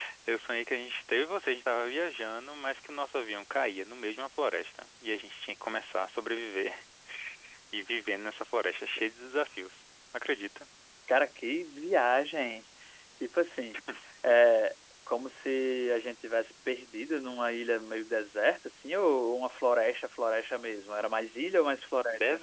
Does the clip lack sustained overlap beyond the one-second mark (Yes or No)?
Yes